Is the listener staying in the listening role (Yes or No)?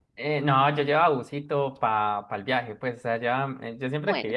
Yes